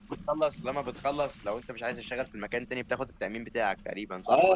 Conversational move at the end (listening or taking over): taking over